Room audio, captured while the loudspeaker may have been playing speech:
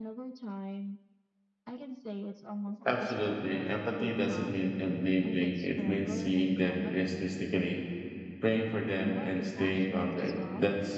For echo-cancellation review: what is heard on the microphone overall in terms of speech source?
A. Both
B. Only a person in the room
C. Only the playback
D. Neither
A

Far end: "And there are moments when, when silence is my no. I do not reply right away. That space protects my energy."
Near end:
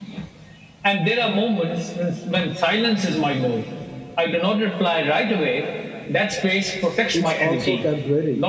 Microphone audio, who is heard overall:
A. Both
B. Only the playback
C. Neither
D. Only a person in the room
A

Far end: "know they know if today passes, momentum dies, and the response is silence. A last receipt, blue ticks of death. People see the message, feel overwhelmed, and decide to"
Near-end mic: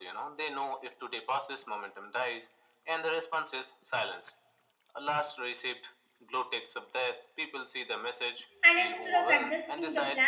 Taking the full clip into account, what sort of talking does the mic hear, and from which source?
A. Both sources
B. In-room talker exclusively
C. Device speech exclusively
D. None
A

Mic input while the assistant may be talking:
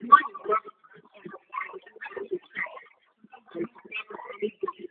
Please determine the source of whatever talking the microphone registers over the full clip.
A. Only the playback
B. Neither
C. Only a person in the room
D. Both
A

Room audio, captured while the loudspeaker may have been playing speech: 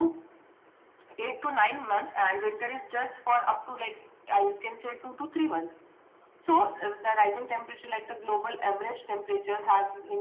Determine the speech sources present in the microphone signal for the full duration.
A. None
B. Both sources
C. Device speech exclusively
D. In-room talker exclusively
C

